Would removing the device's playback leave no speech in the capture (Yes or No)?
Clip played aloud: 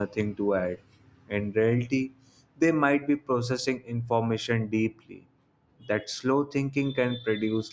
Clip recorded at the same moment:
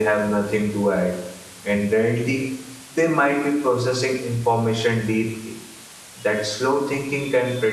Yes